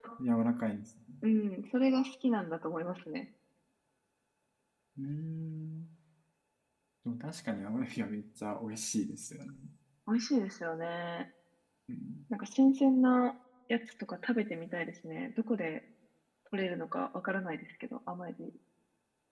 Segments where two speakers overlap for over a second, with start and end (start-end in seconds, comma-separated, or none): none